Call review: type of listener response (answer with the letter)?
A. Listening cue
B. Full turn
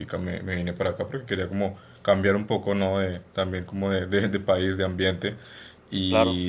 A